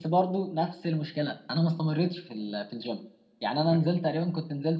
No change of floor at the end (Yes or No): Yes